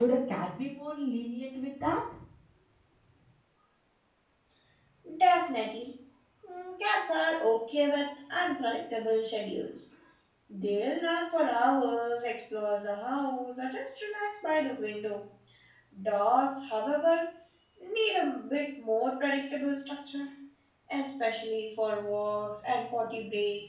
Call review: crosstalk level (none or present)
none